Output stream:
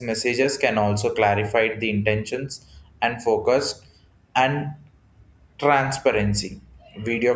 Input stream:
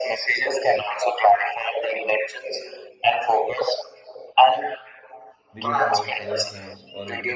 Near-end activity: present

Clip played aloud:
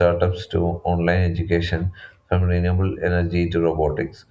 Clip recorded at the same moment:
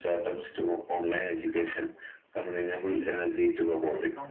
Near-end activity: present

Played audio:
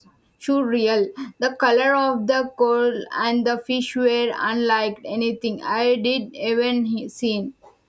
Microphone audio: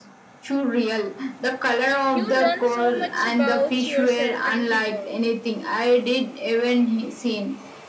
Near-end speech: present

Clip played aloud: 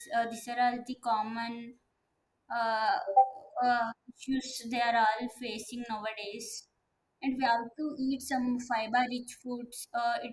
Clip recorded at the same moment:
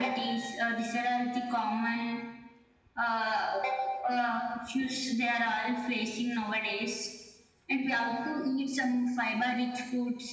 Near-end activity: none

